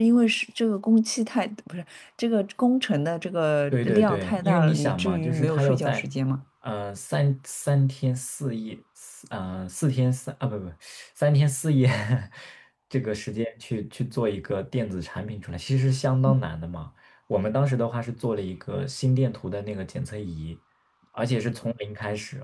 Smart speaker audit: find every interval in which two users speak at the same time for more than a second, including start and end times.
3.7-6.1

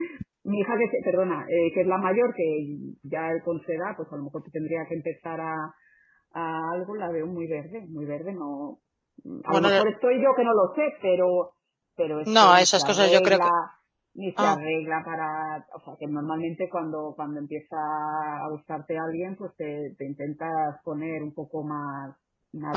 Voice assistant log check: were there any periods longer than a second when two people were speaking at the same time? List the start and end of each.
12.3-13.5

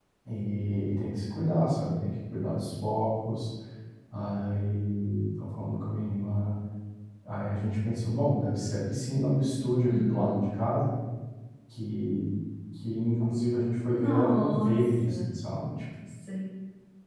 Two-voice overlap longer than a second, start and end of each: 13.8-15.2

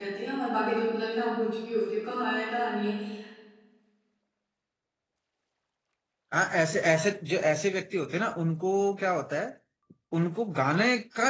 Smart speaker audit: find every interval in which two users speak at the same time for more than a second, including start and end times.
none

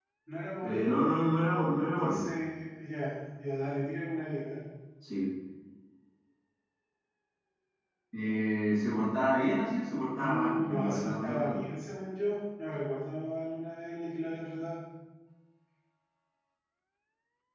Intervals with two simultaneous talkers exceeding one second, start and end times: 10.1-11.6

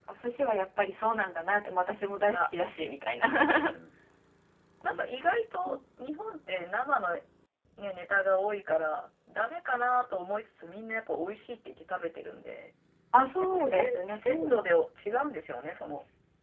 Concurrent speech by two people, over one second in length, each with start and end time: 13.4-14.7

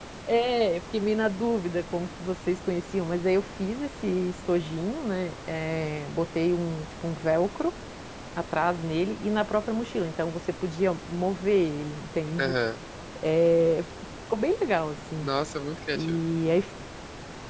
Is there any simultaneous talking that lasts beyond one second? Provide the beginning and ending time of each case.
none

